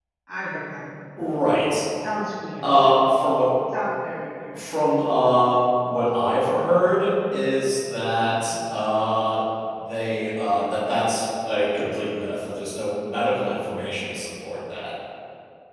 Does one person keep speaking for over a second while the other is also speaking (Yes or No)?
No